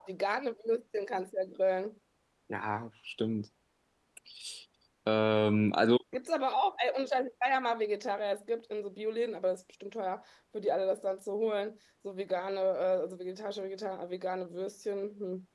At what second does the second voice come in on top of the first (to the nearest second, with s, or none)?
none